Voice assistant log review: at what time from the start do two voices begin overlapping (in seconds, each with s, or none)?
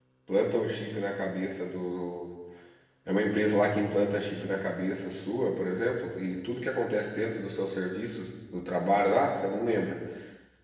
none